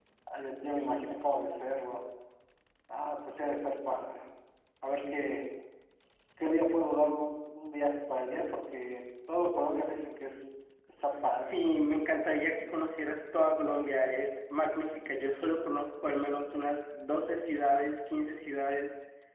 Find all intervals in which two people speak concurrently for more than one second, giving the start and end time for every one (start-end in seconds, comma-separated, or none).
none